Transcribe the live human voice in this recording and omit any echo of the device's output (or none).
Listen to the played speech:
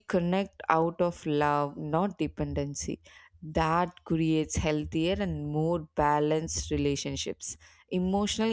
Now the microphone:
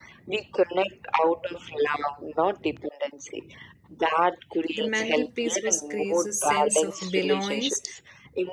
The mantelpiece was creates a sense of belongings